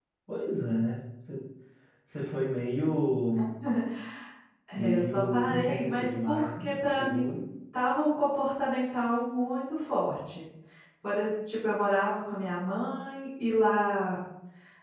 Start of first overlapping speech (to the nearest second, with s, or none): 5 s